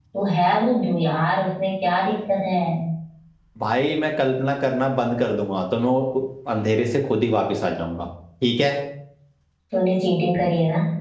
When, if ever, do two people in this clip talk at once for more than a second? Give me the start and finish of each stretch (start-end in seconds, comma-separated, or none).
none